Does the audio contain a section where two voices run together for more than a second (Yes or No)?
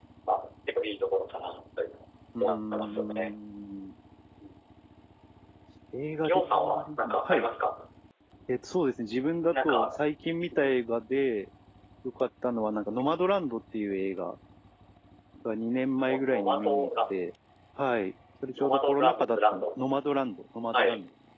Yes